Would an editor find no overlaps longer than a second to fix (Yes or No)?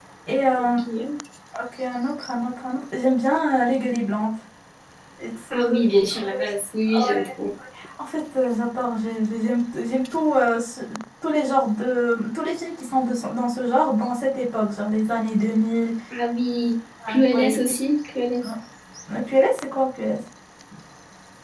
Yes